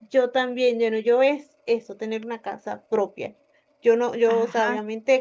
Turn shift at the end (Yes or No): No